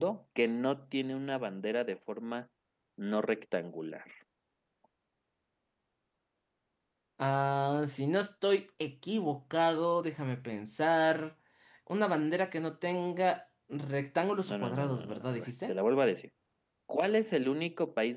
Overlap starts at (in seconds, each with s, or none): 14.5 s